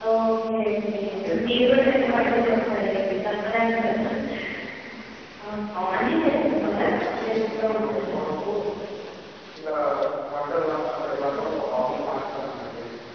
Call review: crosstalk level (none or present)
present